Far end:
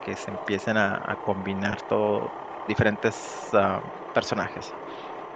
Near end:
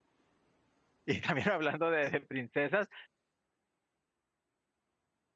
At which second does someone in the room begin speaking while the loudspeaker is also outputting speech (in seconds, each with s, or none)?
1.1 s